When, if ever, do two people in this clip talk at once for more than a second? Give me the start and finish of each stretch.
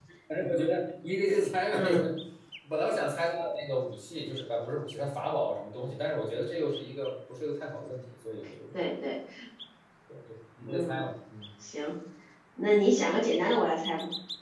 none

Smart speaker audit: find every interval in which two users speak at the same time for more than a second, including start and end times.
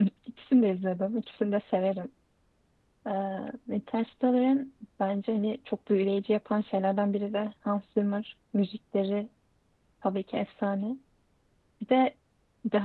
none

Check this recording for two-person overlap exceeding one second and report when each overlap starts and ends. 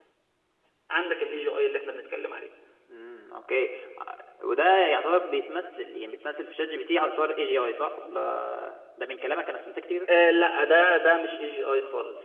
none

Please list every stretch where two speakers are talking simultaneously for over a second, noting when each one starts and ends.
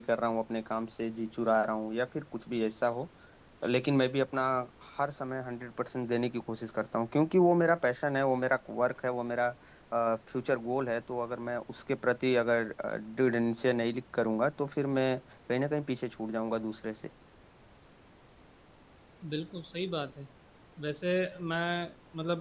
none

